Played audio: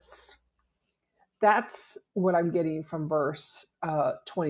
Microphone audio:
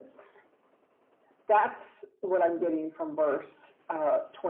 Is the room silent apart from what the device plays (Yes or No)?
Yes